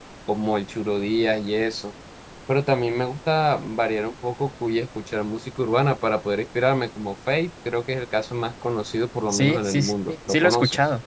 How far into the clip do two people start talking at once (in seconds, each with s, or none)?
9.3 s